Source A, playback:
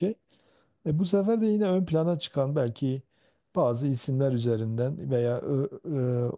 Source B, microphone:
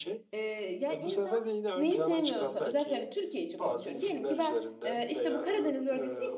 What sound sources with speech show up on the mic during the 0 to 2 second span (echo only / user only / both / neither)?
both